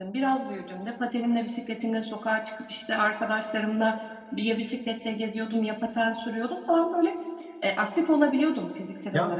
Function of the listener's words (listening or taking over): taking over